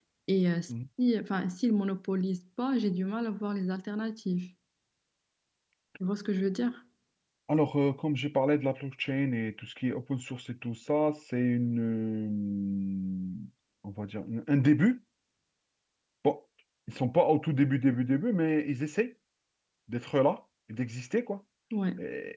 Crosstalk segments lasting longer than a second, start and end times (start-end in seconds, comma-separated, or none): none